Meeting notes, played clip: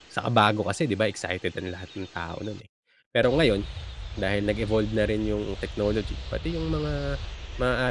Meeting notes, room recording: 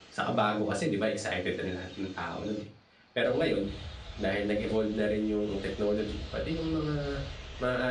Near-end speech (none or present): none